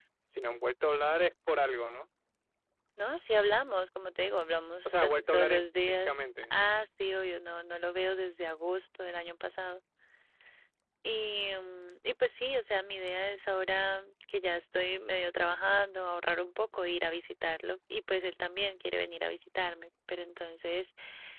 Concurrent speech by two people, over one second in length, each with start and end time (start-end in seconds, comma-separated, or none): 4.8-6.1